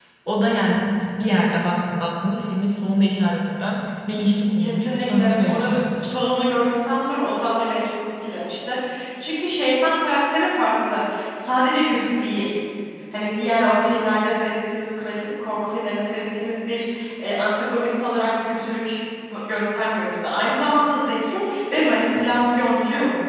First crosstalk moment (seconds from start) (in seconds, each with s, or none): 4.6 s